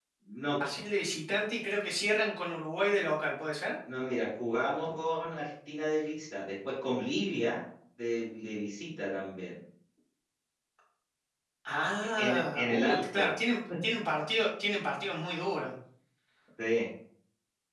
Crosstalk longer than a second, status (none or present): present